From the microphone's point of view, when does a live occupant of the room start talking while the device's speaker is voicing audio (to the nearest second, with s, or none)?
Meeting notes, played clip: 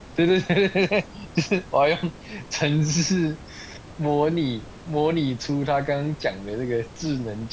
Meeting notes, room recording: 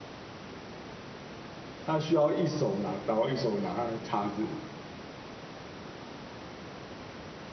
2 s